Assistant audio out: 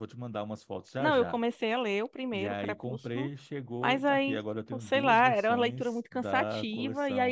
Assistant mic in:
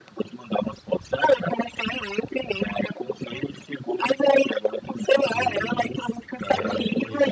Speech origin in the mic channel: both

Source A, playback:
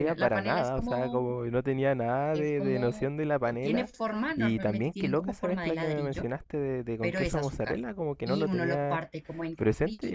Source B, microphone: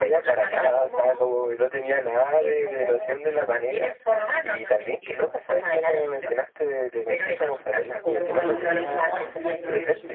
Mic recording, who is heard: both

